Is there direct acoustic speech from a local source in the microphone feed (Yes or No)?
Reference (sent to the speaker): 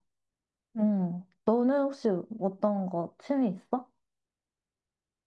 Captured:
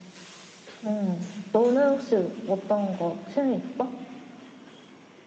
No